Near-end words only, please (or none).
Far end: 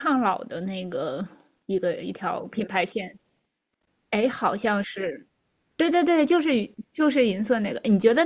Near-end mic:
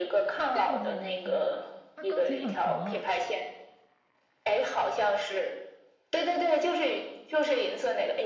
这个你也没听到呀？它膏体很黄，